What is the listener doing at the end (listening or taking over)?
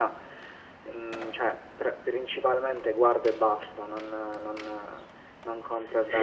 taking over